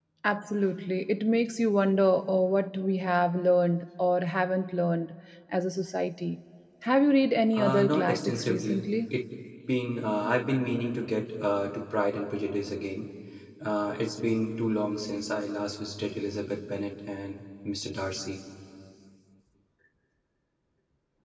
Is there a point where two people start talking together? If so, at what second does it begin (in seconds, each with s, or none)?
7.5 s